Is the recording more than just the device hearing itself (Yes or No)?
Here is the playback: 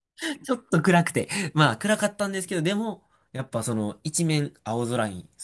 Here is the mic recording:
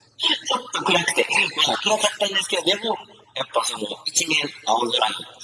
No